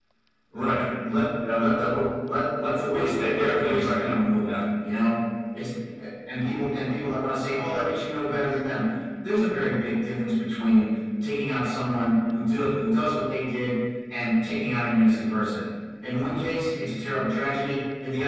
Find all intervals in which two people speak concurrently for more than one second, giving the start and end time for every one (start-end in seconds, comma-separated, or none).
2.6-4.5